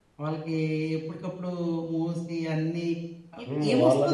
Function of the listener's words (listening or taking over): taking over